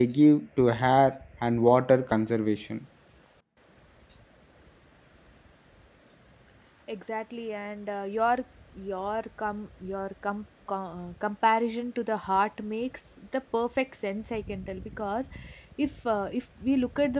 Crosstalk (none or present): none